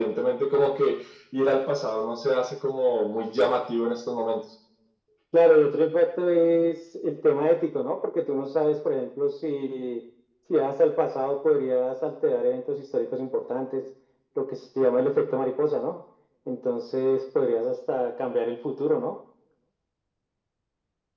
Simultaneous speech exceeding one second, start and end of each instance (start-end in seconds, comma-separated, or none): none